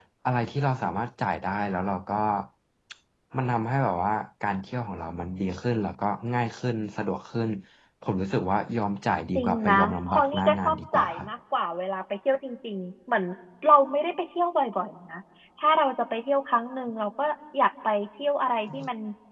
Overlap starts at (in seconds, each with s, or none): 9.4 s